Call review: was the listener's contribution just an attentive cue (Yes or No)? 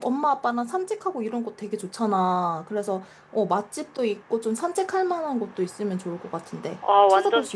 No